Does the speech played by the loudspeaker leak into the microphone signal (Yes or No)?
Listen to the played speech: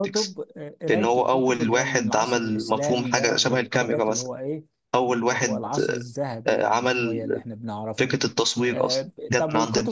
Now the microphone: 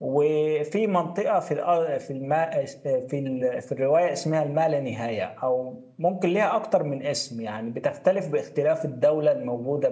No